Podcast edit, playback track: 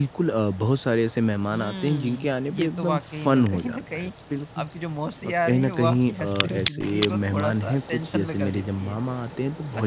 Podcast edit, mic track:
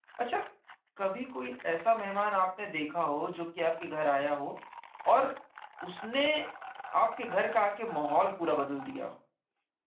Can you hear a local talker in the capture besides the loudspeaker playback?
Yes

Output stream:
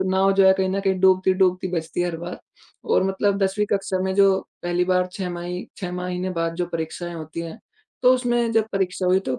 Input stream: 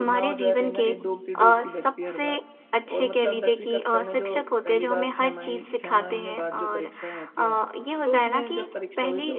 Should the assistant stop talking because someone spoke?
Yes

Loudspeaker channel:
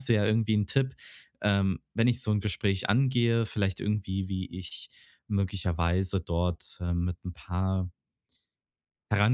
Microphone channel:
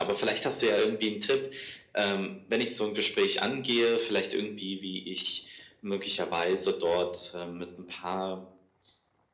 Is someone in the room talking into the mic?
No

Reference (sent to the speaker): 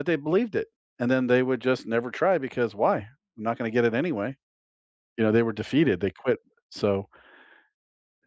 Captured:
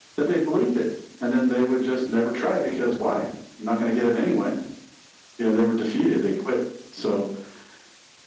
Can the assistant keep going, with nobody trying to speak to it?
Yes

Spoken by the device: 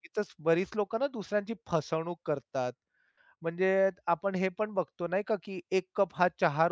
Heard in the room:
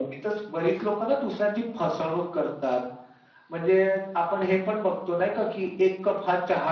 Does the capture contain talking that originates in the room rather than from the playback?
No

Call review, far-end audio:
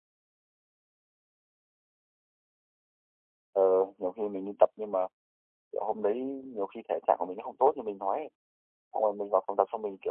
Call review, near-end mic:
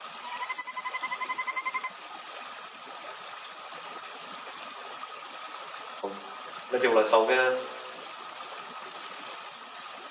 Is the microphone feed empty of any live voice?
No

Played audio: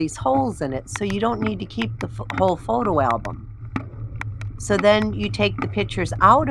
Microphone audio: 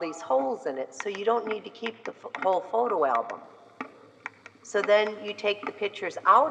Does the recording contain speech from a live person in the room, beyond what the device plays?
No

